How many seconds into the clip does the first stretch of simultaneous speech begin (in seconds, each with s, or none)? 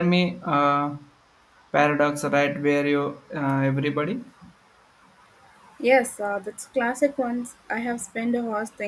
none